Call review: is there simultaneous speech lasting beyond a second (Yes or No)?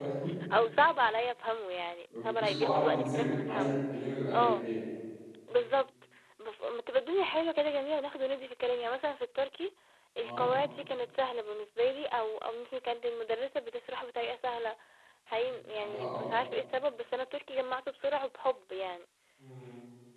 Yes